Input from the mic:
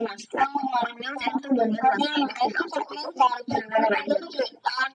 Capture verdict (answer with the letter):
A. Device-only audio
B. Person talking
A